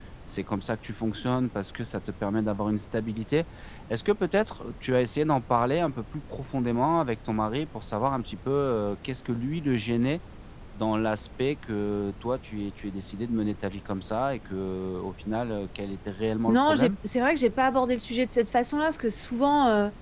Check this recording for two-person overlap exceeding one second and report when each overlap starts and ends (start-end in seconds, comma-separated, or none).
none